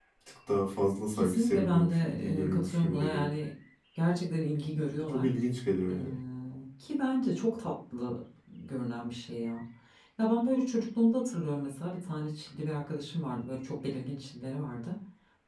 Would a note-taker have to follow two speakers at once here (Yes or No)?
Yes